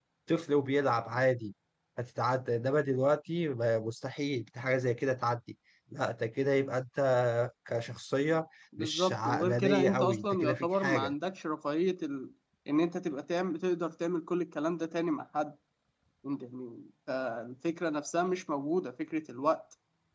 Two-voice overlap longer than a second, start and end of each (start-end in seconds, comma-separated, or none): 8.8-11.1